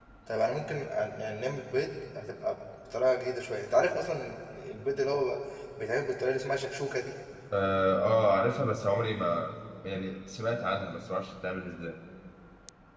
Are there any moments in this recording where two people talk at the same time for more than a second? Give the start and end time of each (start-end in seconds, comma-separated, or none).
none